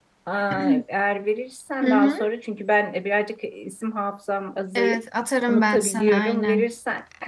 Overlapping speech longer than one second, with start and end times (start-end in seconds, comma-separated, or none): 5.5-6.7